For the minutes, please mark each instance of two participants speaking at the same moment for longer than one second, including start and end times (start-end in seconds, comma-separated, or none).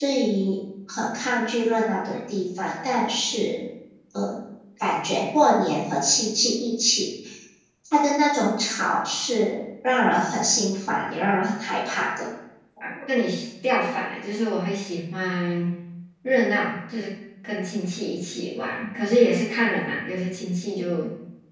none